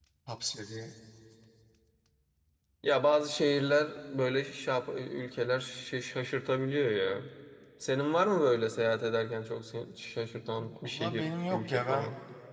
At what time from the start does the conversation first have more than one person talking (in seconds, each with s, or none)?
10.6 s